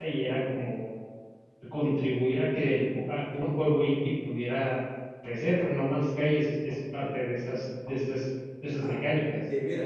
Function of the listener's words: taking over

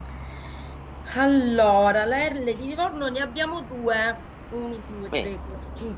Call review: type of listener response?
listening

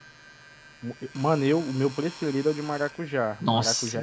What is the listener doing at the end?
taking over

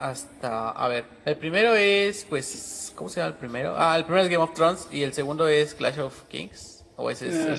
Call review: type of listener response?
taking over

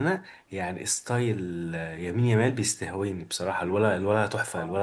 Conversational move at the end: taking over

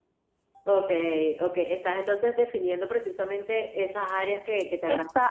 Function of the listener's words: taking over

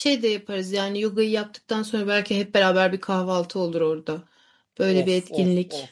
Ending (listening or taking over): taking over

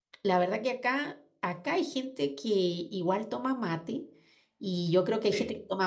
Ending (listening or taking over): listening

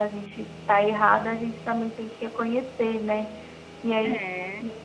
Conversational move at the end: listening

